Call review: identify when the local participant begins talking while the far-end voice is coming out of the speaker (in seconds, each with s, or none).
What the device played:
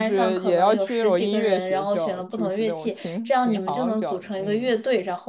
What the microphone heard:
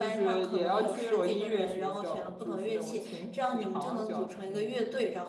none